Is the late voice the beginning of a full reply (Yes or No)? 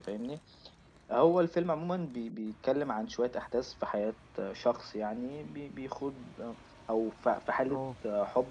No